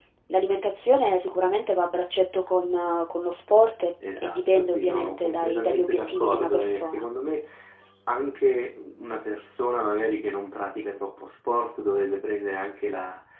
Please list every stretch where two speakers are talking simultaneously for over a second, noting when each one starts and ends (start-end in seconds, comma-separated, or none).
4.2-7.0